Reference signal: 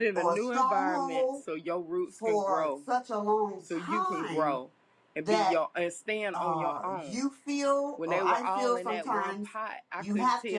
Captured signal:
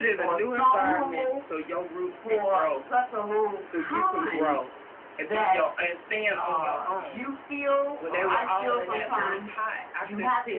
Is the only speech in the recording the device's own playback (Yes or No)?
Yes